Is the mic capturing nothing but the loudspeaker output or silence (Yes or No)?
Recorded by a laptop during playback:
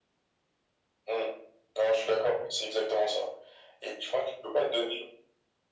Yes